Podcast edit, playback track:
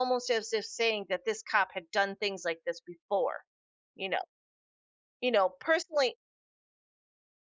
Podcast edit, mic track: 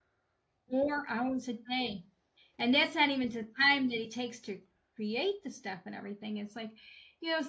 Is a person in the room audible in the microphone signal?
Yes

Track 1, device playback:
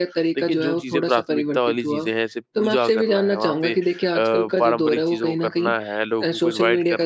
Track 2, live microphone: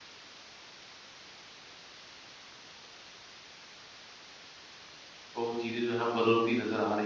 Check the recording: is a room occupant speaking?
Yes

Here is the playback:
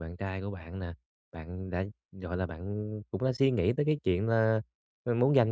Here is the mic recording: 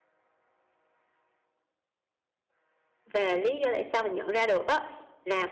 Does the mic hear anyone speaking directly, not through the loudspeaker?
Yes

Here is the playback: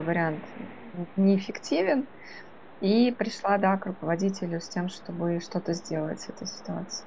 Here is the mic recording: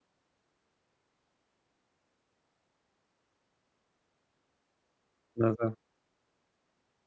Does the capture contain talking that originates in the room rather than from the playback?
Yes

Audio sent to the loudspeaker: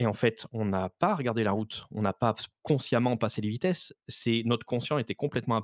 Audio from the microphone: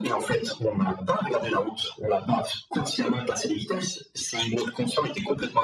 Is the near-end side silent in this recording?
Yes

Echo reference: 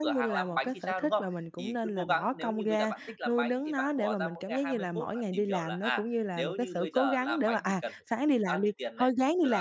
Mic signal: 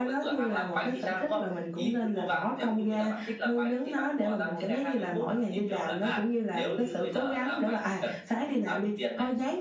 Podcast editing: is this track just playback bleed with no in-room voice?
Yes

